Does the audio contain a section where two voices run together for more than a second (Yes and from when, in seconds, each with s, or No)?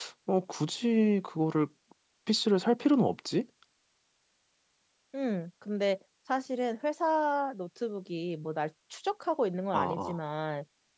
No